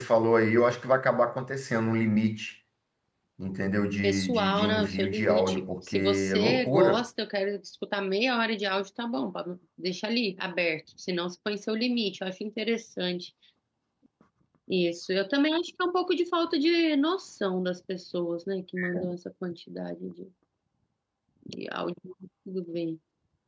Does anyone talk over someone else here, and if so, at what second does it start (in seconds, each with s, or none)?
4.0 s